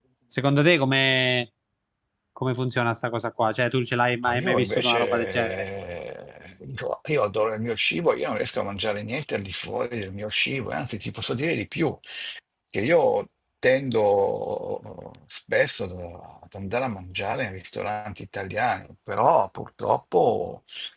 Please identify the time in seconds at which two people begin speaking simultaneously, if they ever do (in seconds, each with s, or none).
4.2 s